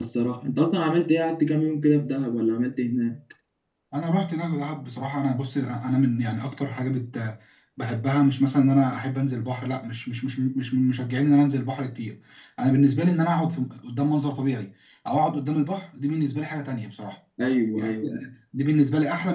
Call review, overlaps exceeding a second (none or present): none